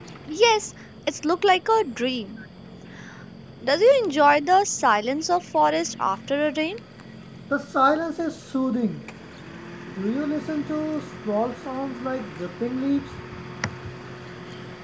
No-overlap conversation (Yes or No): Yes